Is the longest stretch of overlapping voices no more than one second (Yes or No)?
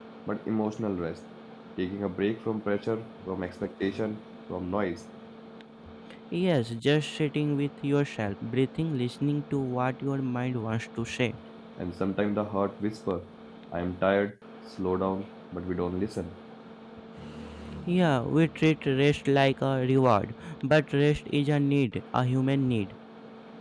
Yes